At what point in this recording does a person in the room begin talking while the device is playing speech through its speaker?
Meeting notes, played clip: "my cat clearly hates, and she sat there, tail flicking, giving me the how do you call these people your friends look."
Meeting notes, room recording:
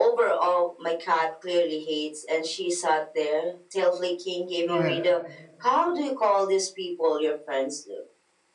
4.6 s

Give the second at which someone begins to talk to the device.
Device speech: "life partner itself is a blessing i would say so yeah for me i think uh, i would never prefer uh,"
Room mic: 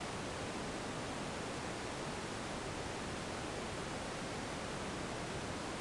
none

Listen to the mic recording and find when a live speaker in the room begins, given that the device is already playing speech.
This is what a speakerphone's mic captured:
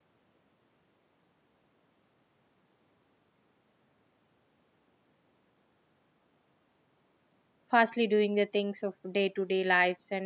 7.7 s

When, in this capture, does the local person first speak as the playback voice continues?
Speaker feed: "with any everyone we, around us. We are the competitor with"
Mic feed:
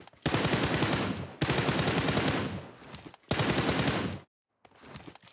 none

